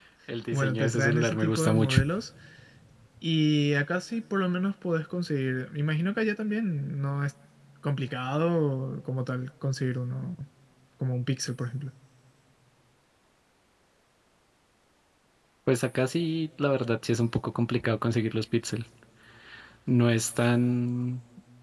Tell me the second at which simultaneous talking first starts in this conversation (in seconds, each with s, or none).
0.5 s